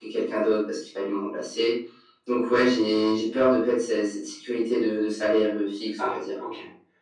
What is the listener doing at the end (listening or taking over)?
taking over